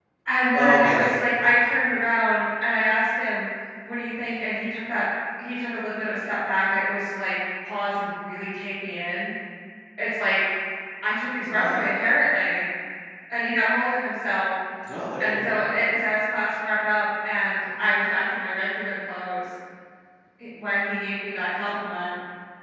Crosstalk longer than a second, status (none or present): none